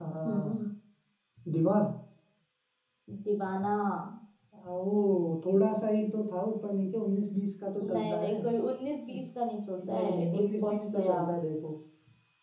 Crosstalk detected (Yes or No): Yes